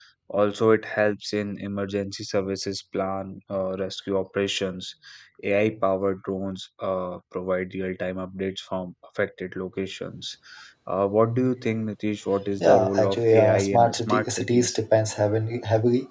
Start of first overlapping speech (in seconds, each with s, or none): 12.6 s